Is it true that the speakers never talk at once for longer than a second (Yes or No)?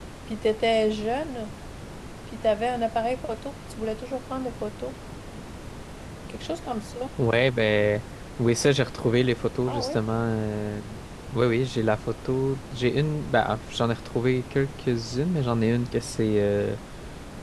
Yes